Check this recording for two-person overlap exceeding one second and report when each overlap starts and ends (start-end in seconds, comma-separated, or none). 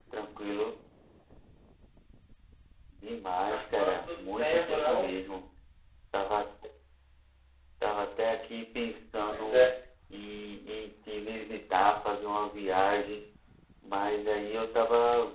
3.5-5.1